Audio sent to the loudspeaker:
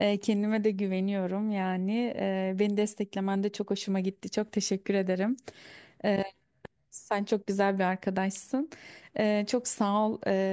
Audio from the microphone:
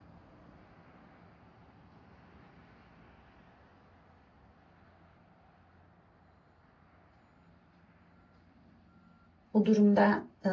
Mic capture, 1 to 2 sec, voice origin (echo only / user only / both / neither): neither